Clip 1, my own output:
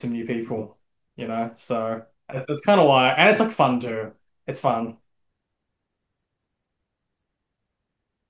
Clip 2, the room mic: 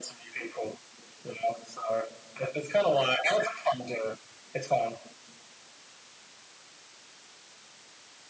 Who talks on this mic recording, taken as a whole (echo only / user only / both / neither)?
echo only